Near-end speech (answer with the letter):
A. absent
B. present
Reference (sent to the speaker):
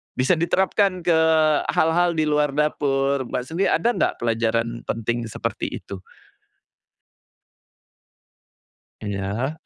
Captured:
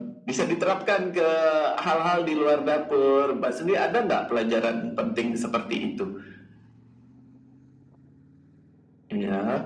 A